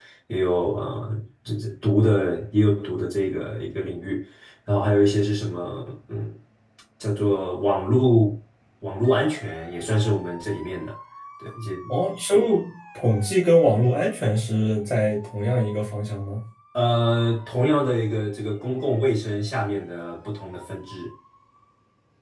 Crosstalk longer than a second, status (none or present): none